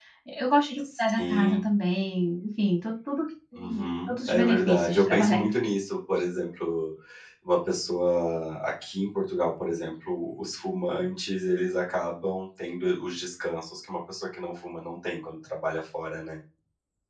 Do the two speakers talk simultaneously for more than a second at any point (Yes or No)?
Yes